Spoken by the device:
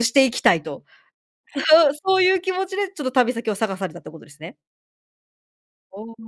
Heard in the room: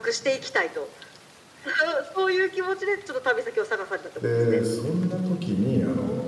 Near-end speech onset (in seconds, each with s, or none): 4.2 s